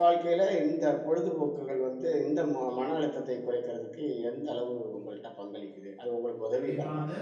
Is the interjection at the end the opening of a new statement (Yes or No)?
Yes